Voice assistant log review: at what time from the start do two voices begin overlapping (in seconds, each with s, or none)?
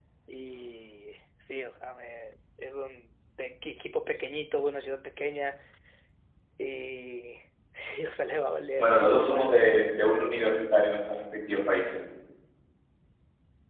8.8 s